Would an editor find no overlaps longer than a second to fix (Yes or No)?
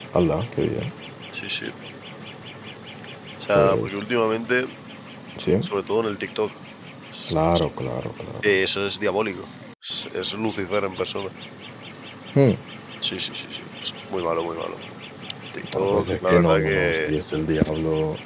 No